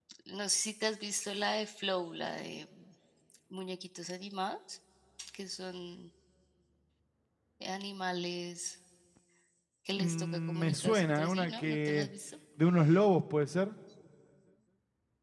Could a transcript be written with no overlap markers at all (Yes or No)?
No